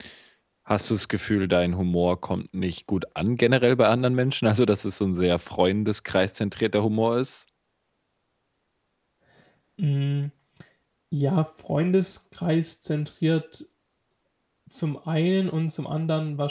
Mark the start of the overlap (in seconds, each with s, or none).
none